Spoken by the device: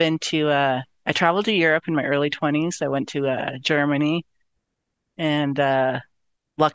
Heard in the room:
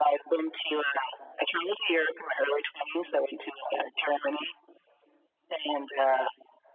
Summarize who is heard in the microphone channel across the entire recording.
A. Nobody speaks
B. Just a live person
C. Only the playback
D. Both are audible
C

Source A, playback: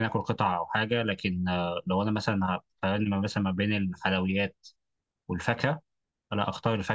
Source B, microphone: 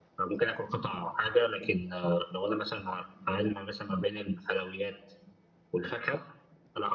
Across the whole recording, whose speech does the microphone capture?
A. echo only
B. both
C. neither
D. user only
A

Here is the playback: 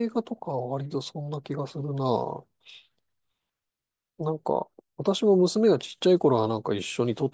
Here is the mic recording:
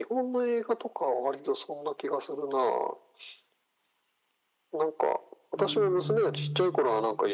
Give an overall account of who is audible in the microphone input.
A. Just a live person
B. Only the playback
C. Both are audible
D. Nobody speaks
C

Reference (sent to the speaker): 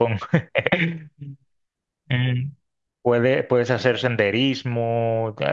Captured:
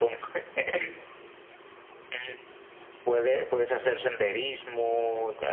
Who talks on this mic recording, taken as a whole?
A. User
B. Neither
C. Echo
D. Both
C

